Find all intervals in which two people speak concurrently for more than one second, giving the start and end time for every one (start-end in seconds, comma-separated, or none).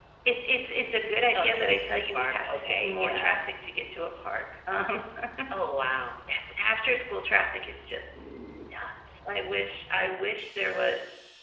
1.4-3.3